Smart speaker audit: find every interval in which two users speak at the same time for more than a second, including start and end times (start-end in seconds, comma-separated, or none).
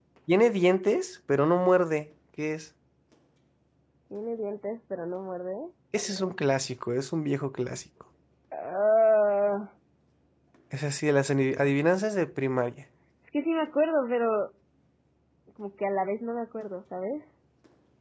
none